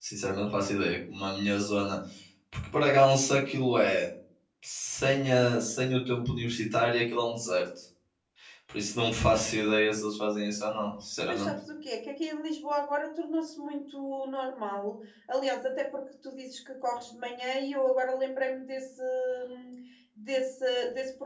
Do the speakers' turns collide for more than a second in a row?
No

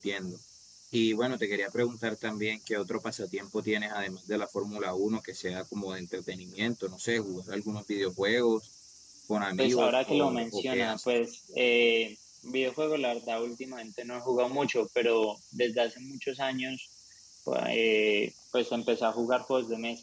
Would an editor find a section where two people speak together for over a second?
Yes, from 9.6 s

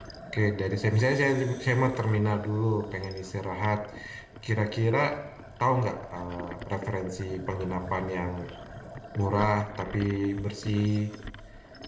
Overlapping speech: No

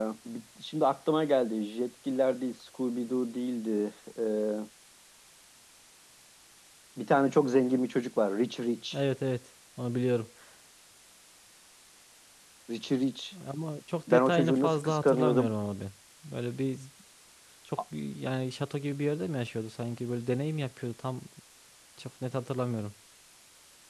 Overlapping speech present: Yes, from 14.1 s

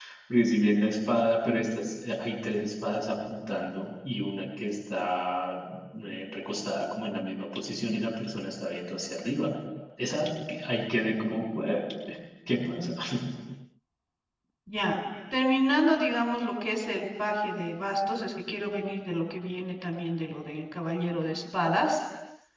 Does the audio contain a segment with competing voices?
No

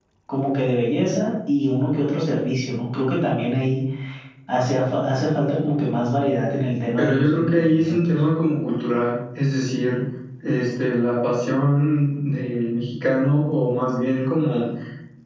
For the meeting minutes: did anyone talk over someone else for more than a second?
Yes, from 7.0 s

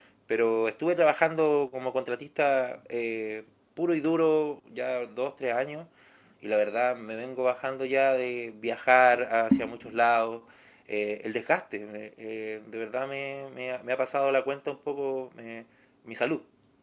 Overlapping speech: No

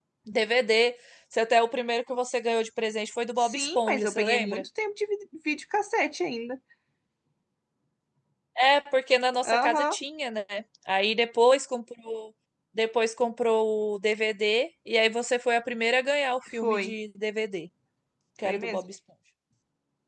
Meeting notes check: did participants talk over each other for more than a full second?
Yes, from 3.3 s

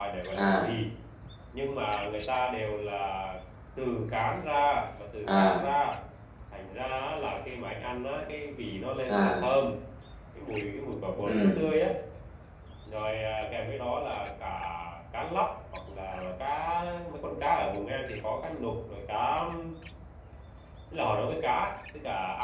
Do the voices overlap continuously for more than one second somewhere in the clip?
No

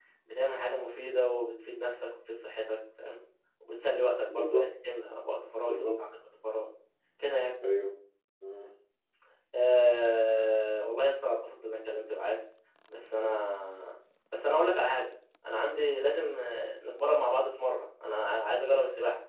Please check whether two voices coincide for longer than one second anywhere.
No

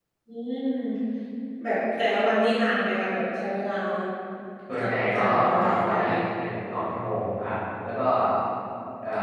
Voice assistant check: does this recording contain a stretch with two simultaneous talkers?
Yes, from 4.8 s

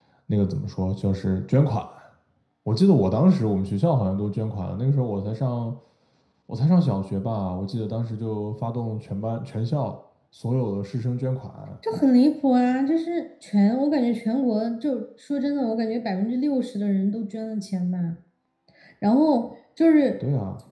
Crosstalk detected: No

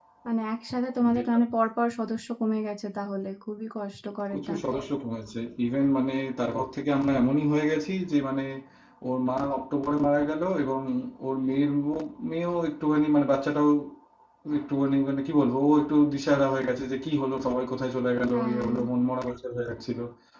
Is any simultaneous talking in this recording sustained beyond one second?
No

